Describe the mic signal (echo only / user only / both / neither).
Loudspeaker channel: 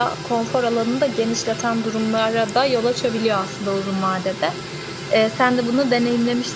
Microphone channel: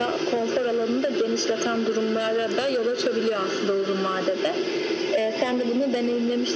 echo only